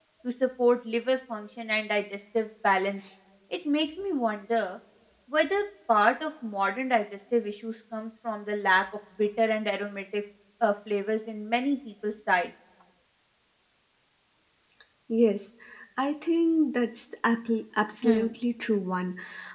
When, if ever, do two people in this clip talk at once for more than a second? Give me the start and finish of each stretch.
none

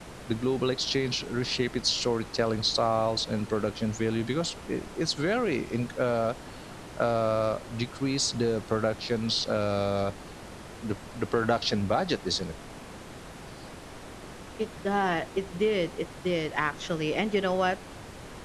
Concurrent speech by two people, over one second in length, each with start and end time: none

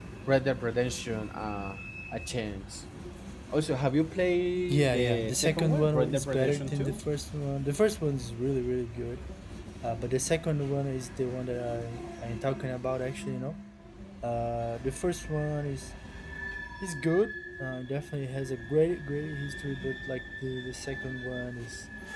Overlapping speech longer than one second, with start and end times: 4.7-7.0

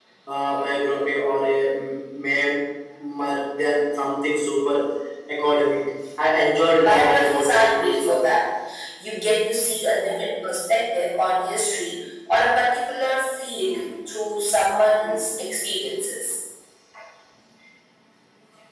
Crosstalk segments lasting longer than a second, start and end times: 6.8-8.3

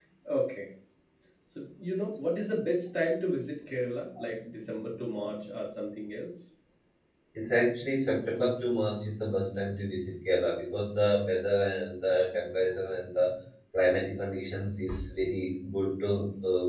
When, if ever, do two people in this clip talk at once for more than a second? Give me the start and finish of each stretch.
none

